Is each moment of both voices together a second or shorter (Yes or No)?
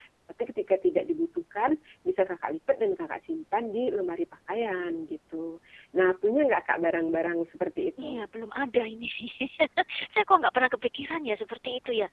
Yes